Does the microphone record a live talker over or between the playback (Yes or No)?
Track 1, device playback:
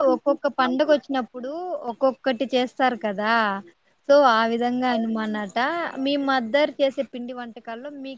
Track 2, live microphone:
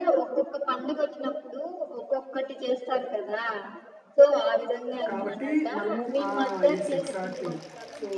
Yes